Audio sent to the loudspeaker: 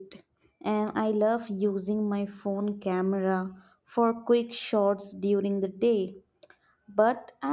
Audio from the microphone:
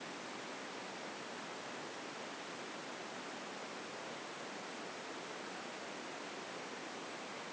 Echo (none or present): none